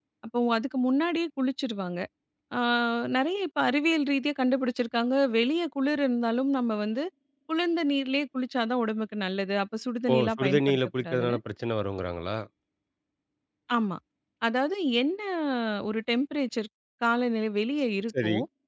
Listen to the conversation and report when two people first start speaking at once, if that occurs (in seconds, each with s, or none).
10.1 s